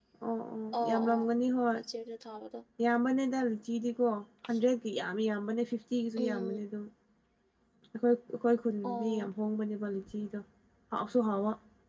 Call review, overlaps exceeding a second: none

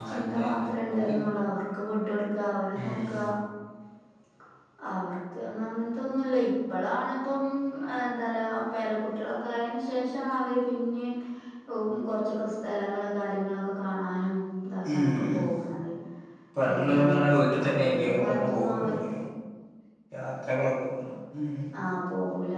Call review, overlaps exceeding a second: present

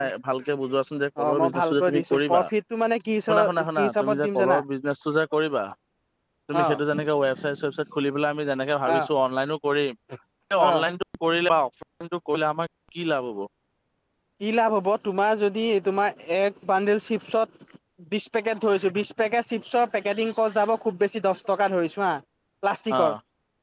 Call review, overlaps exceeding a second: present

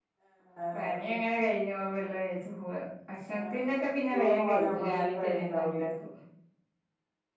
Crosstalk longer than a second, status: present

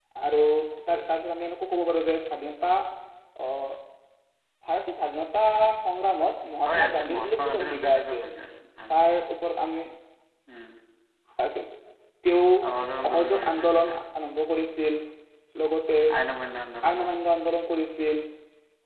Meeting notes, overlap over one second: present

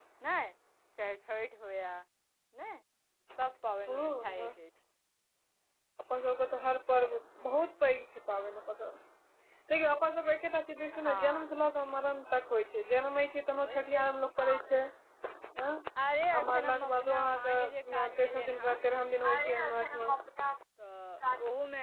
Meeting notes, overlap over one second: present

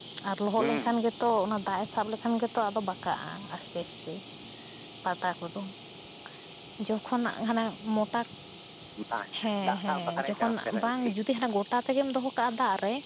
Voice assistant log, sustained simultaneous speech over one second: present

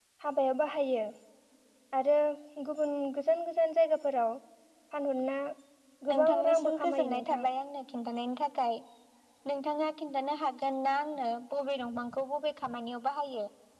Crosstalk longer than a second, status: present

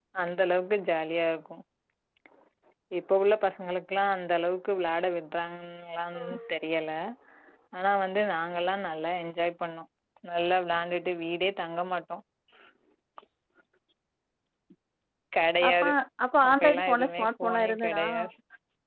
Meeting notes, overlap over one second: present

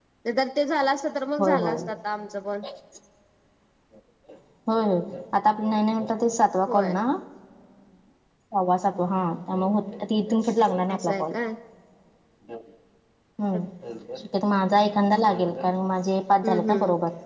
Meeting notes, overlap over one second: none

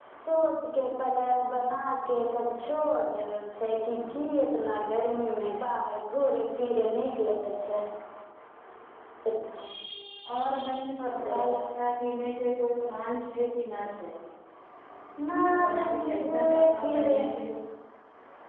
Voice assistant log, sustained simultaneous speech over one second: present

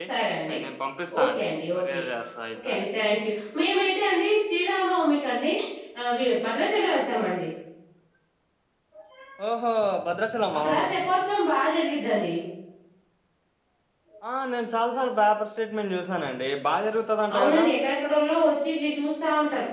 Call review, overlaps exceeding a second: none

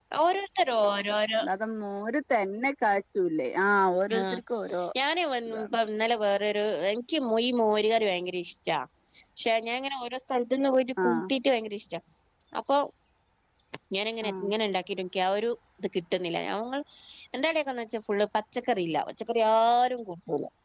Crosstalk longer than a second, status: none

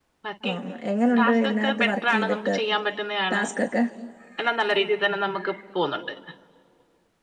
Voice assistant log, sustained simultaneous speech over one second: present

